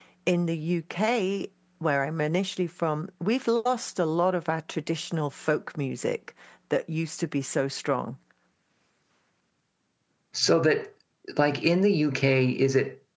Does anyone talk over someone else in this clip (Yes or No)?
No